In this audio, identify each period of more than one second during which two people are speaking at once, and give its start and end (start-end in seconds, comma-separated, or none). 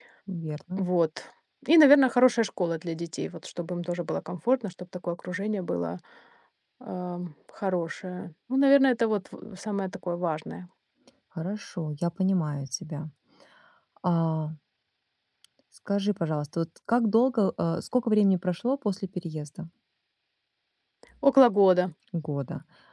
none